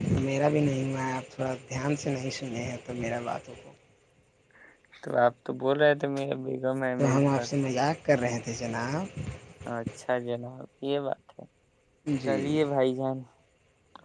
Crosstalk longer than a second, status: none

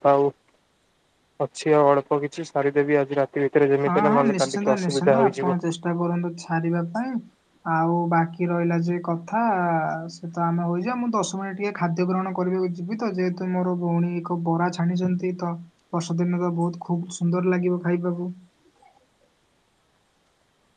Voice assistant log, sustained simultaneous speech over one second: present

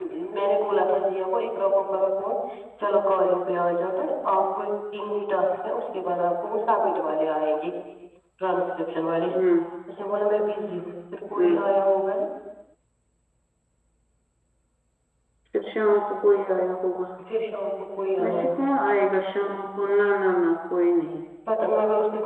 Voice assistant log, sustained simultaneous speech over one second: none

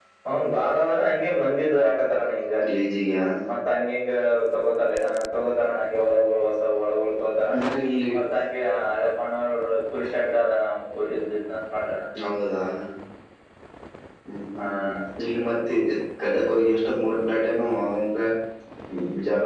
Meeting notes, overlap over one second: none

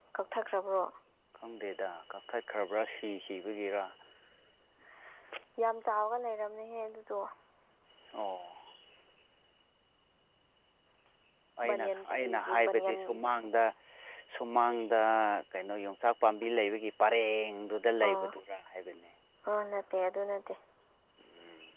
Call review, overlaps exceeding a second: present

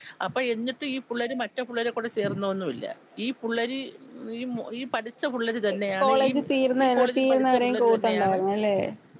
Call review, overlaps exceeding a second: present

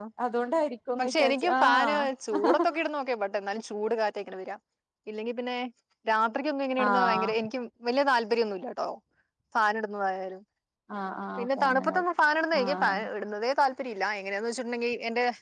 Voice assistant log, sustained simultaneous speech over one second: present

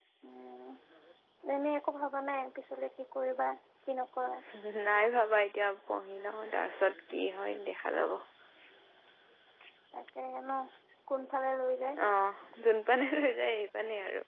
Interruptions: none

